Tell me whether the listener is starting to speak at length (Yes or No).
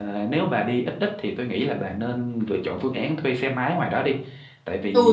Yes